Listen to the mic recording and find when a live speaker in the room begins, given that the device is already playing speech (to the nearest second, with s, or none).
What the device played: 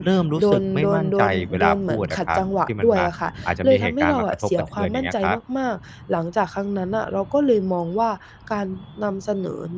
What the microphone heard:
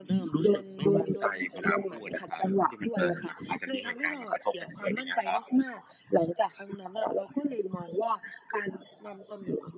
none